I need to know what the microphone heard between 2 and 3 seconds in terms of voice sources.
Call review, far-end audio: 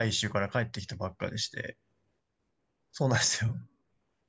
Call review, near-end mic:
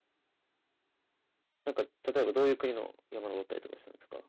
user only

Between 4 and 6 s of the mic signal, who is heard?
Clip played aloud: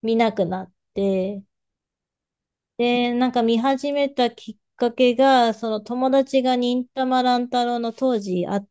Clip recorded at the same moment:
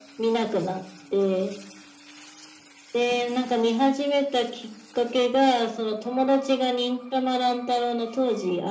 echo only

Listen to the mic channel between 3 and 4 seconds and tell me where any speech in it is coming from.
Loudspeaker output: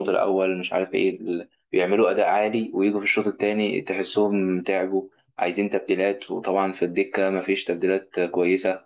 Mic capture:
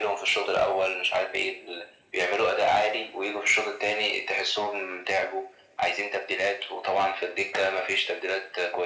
echo only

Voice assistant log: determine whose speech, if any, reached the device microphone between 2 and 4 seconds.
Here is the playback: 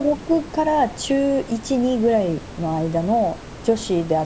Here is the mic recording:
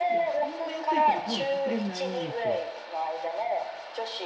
both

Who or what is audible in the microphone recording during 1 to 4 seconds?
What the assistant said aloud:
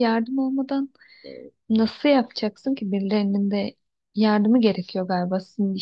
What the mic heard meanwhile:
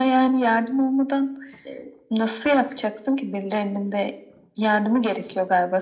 echo only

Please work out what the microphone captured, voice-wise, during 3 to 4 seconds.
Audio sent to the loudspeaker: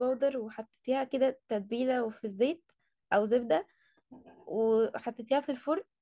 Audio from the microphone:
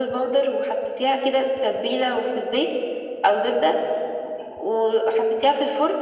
echo only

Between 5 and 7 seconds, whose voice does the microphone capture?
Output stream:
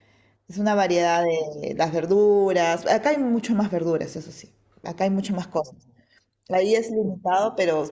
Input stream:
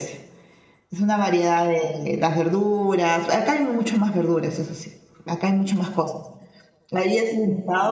echo only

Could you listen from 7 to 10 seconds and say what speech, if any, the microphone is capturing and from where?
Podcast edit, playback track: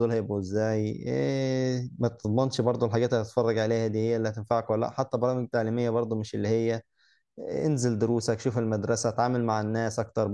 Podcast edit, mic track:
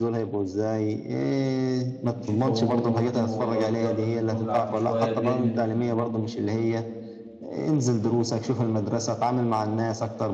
echo only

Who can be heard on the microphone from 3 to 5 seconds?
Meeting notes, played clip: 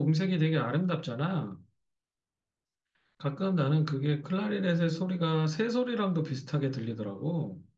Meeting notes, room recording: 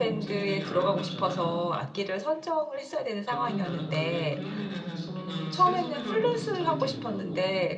both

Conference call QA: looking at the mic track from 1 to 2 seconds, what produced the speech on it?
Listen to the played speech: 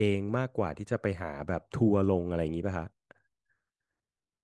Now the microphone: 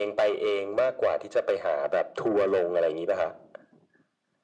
echo only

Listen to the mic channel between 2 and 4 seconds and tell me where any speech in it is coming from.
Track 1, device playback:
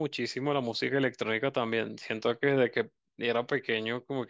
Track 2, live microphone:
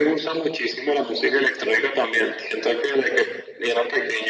echo only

